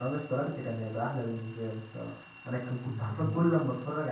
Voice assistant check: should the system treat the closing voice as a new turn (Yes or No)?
No